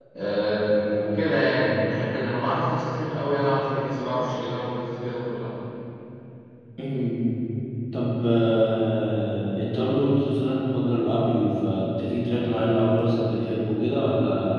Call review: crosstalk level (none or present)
none